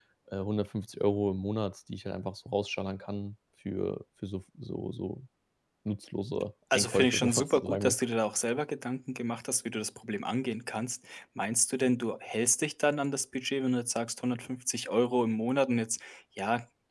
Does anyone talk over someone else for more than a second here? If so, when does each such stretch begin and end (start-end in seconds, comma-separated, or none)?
6.7-8.0